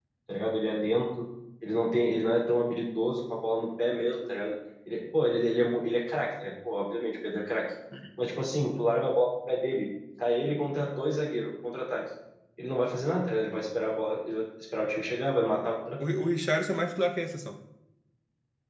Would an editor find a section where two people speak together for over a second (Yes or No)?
No